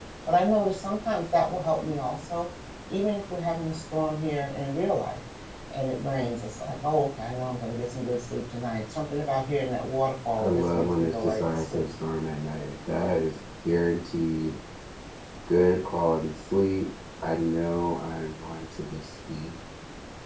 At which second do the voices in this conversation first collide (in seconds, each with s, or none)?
10.4 s